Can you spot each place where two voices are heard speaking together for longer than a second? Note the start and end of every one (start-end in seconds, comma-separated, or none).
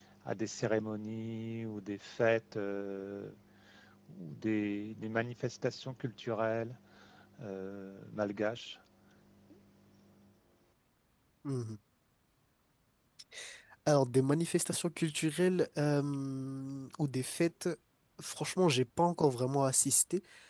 none